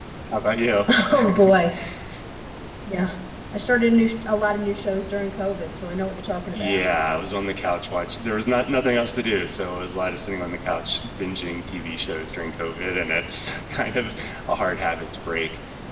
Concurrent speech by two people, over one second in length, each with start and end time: none

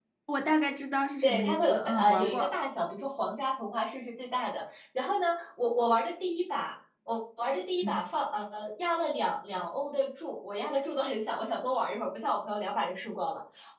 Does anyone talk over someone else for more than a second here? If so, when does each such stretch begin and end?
1.2-2.5

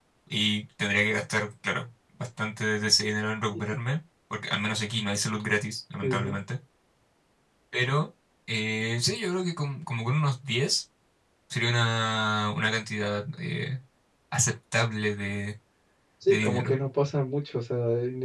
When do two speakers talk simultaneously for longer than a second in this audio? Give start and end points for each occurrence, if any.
none

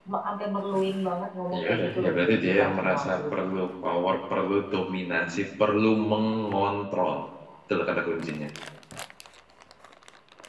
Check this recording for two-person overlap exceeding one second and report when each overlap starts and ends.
1.6-3.2

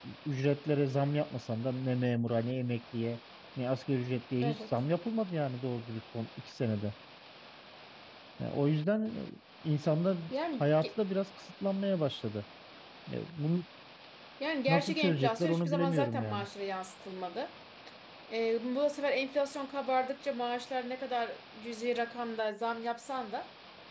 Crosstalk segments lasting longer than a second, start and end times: 14.7-16.5

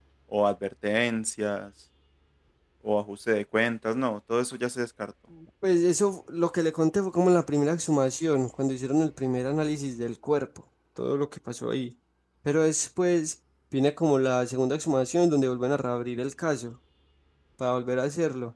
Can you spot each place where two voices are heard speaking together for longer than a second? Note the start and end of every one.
none

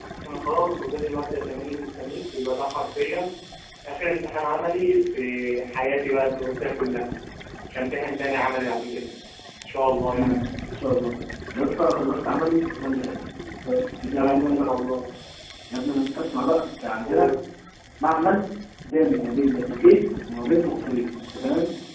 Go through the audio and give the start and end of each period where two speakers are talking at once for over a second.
none

